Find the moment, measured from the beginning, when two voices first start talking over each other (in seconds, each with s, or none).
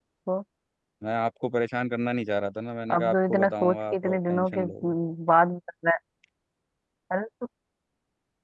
2.9 s